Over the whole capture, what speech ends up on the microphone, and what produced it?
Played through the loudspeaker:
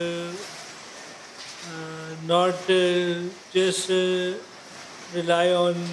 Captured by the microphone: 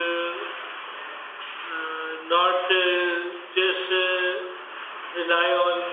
echo only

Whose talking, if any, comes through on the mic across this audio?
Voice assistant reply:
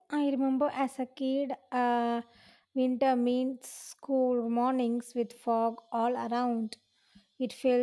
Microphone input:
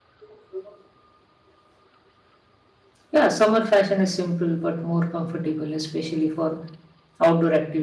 user only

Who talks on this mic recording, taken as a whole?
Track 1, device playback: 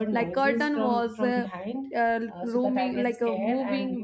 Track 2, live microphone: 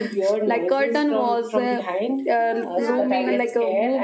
both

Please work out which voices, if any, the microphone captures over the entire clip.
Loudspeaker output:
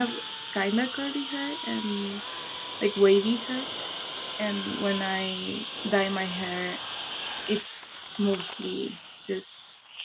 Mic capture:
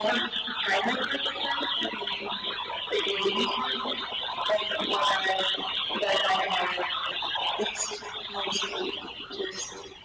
echo only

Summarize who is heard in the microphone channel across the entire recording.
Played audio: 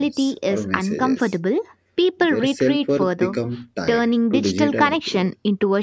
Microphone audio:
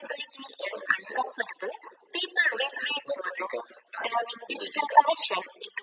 echo only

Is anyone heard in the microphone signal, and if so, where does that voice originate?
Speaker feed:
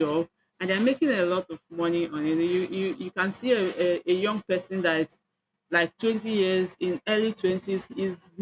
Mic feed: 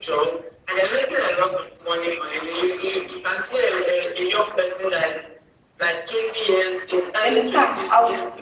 both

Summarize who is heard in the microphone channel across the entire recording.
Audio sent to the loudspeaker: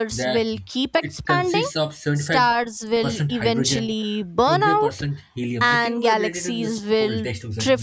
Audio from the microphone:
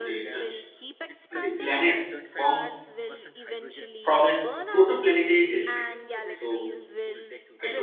both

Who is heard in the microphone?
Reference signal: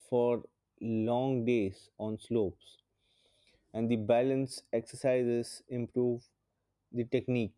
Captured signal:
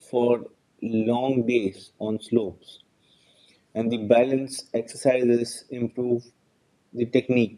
echo only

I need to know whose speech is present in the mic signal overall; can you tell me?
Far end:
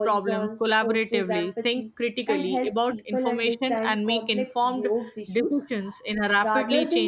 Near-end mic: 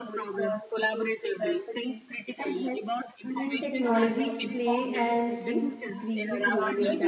both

